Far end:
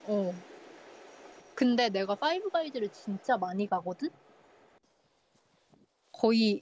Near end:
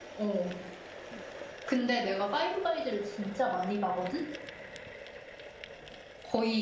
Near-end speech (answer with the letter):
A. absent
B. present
A